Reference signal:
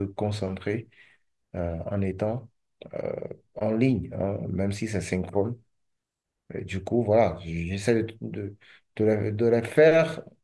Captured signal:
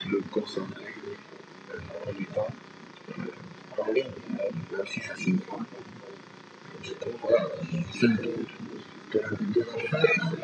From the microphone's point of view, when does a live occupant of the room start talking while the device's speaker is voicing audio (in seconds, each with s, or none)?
none